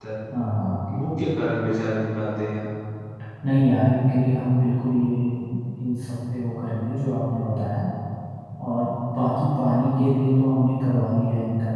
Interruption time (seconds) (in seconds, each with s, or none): none